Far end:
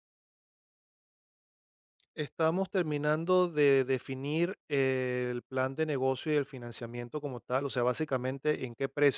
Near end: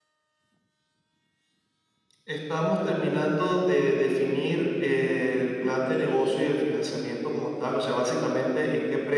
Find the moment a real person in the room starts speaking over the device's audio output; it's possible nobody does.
5.7 s

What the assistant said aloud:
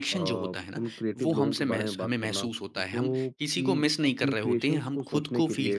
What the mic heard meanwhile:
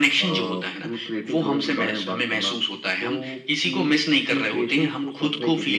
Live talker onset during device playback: none

